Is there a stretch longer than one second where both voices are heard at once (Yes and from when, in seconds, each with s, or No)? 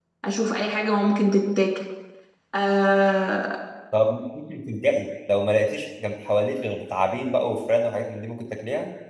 No